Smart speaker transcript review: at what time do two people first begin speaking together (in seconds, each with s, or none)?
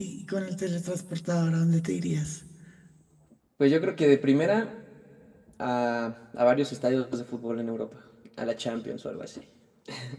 none